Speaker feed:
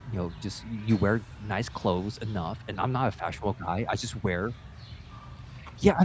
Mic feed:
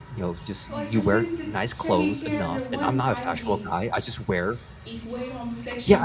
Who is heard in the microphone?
both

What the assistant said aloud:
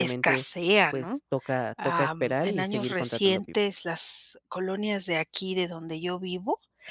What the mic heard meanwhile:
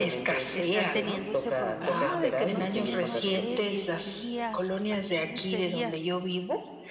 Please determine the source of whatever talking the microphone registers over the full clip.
both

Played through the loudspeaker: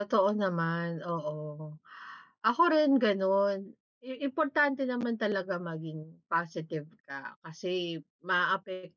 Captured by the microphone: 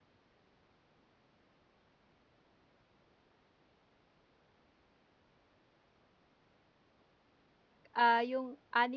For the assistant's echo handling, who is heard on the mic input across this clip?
user only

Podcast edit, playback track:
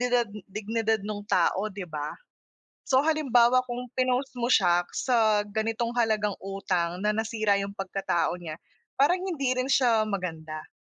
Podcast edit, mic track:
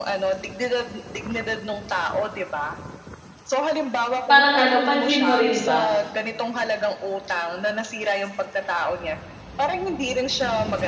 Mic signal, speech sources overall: both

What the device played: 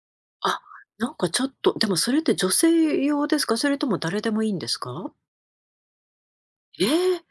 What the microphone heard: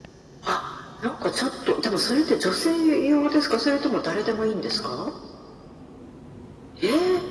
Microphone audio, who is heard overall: echo only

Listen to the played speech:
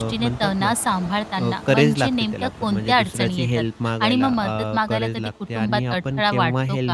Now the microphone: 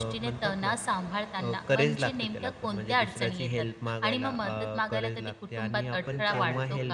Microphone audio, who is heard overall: both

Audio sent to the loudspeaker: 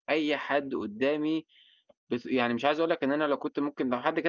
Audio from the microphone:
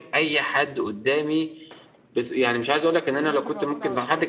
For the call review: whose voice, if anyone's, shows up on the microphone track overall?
both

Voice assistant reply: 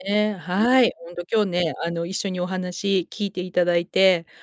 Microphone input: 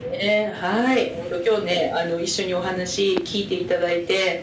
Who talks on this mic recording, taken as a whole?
echo only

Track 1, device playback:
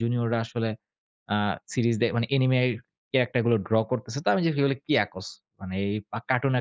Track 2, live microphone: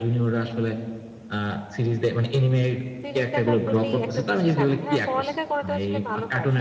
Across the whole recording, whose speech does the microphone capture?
both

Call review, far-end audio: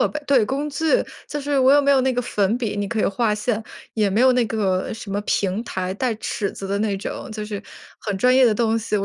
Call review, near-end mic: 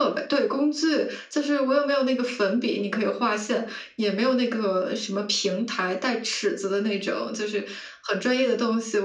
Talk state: echo only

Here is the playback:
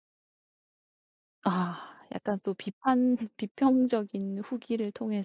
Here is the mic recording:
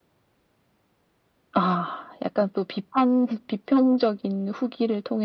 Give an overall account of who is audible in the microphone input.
echo only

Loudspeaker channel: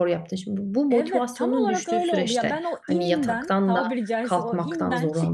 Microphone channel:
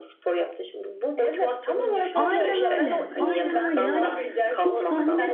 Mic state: both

